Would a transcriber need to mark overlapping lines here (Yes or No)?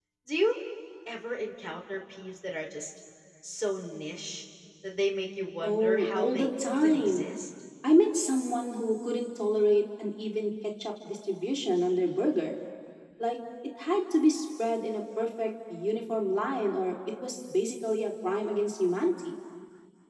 Yes